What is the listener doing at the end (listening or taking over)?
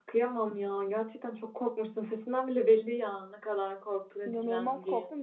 taking over